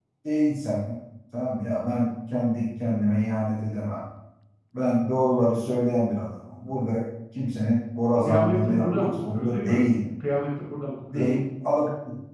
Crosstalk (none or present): present